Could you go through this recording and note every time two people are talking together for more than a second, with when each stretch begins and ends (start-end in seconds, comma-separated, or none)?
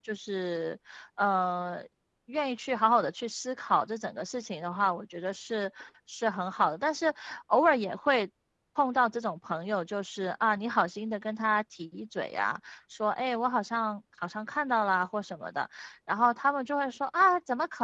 none